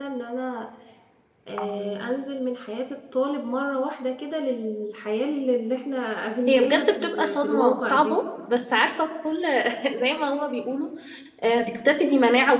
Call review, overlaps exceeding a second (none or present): present